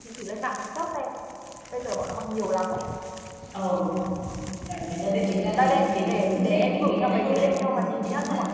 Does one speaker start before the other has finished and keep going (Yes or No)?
Yes